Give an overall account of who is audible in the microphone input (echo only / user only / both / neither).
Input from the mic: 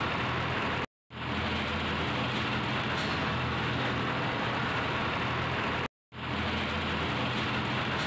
neither